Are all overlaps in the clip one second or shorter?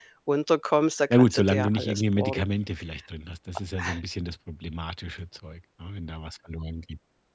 No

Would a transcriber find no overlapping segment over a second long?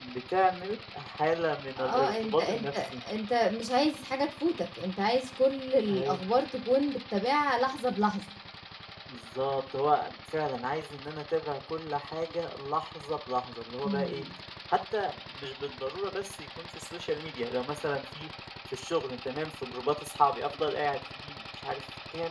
No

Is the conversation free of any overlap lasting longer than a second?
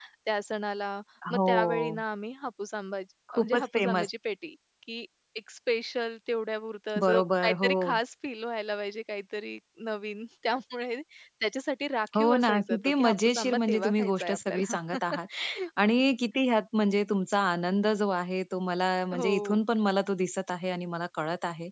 No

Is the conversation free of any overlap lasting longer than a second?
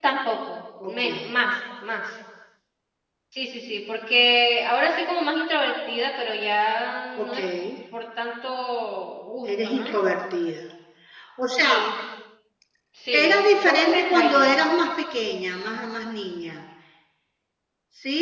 No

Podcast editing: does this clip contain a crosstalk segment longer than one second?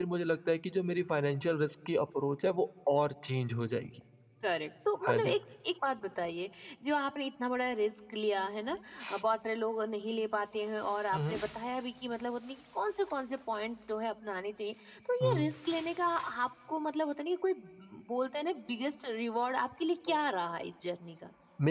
No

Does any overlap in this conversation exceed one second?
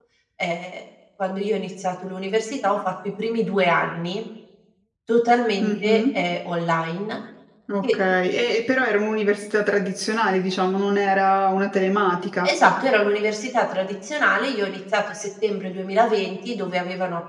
No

